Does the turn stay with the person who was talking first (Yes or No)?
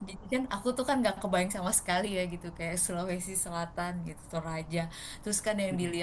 Yes